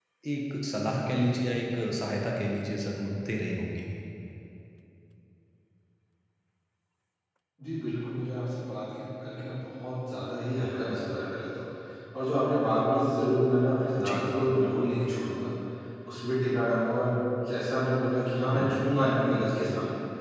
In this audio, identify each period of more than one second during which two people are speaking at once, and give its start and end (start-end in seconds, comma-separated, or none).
none